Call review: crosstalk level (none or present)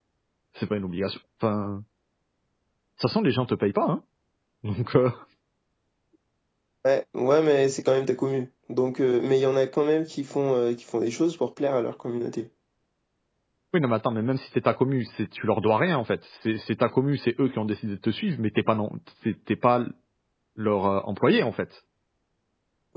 none